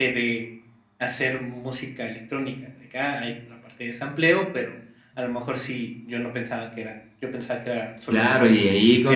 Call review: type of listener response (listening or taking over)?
taking over